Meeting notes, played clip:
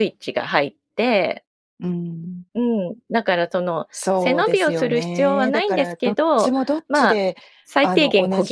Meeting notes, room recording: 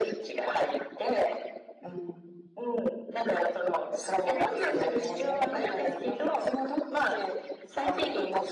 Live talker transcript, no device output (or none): none